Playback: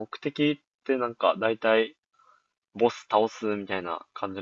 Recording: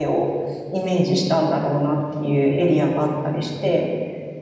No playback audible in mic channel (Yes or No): Yes